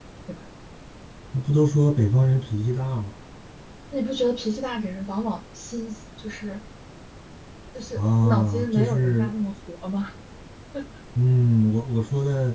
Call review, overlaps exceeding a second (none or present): present